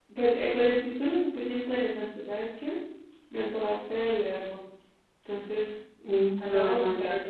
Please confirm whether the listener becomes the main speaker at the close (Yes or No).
Yes